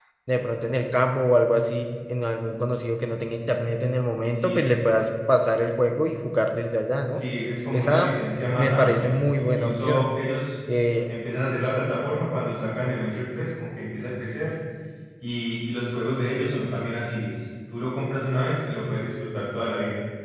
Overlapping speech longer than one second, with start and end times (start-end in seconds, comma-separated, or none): 8.6-10.1